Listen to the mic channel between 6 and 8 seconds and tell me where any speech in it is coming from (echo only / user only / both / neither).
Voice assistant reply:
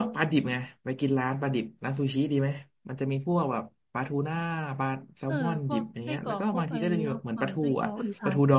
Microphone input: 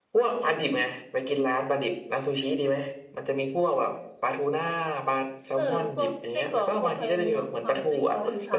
echo only